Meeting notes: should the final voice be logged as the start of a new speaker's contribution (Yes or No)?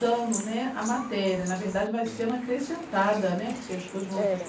Yes